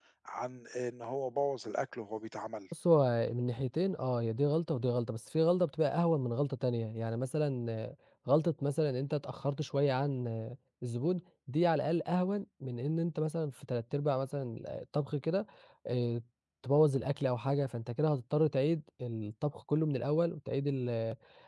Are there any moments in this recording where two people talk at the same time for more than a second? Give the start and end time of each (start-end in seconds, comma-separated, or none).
none